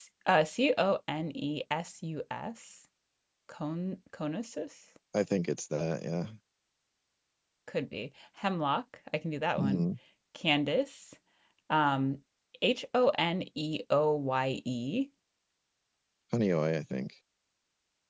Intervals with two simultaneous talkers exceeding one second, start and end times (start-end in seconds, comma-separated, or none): none